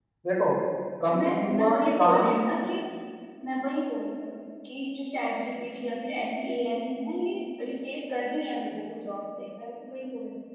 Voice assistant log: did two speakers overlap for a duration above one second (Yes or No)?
Yes